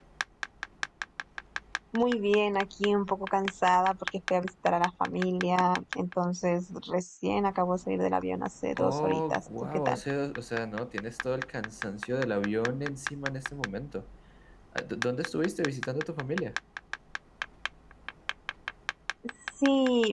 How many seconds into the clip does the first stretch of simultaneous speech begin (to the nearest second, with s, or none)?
9 s